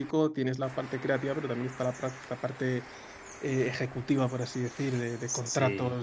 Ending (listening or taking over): listening